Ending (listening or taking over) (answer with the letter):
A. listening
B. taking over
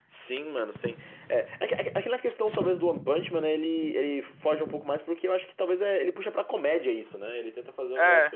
A